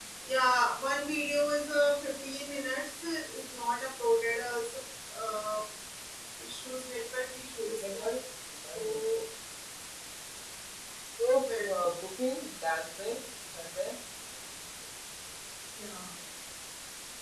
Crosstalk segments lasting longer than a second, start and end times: none

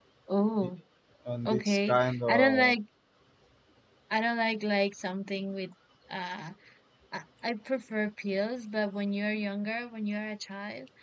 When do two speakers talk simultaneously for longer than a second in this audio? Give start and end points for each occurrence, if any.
1.4-2.8

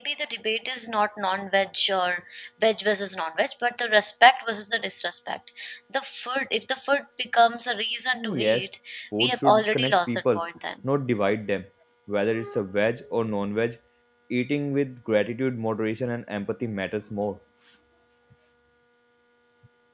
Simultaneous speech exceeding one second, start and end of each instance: 9.2-10.4

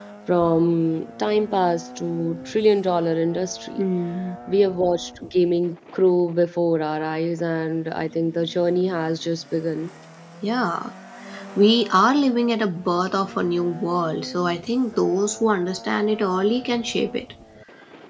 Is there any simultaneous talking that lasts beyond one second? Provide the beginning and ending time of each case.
none

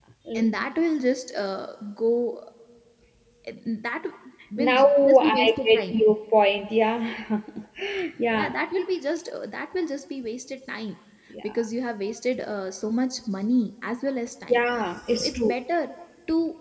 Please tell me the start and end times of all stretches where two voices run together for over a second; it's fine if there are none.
4.6-6.0

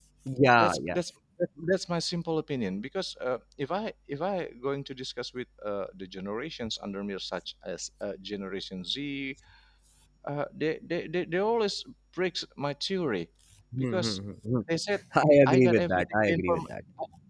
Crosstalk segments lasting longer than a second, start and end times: 15.5-16.7

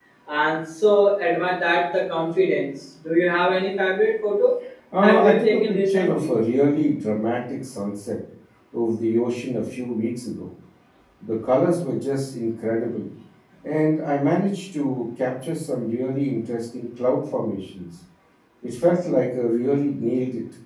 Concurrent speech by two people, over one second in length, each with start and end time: 5.0-6.3

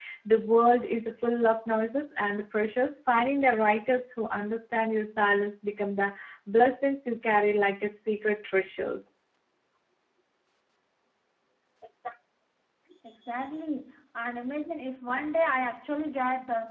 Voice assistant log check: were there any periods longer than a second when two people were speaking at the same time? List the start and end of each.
none

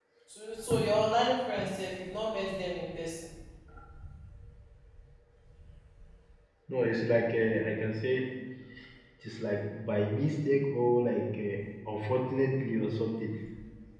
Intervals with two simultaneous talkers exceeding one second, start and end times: none

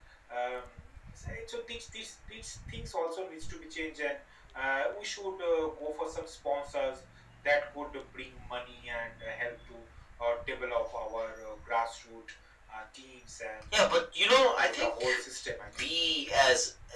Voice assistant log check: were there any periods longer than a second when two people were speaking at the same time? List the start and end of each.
13.8-15.0

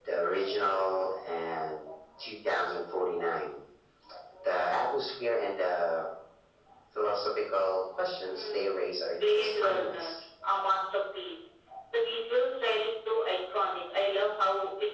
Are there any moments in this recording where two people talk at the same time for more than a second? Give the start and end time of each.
8.3-10.1

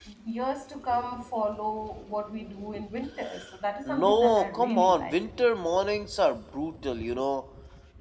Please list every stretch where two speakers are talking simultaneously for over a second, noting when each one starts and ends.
3.9-5.2

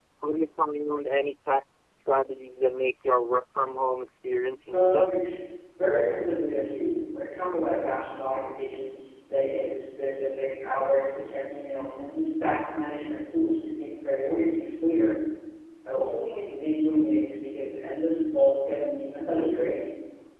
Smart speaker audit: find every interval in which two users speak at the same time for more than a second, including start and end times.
none

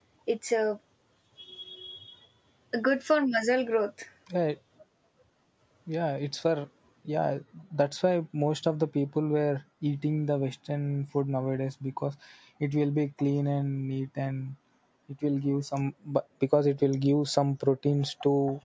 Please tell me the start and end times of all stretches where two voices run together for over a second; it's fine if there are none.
none

